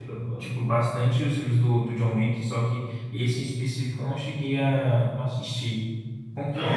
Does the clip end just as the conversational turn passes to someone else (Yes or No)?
Yes